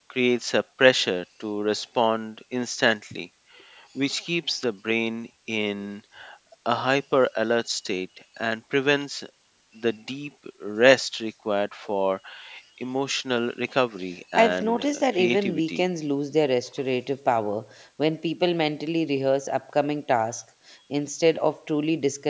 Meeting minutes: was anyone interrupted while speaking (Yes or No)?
Yes